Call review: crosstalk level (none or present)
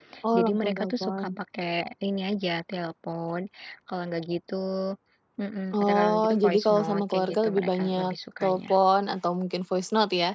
present